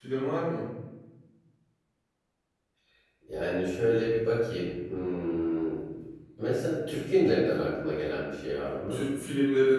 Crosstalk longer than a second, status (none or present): none